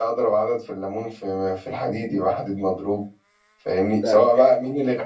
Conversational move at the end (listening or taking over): listening